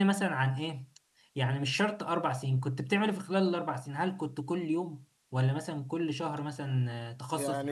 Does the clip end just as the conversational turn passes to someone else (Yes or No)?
Yes